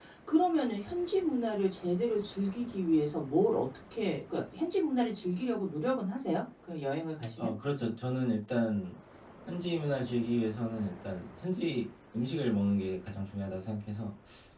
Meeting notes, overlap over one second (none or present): none